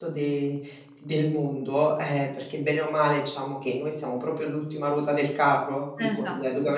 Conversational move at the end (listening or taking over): listening